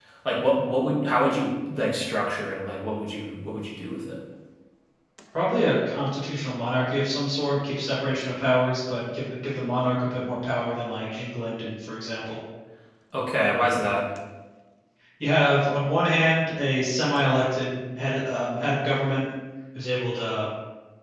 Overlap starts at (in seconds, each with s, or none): none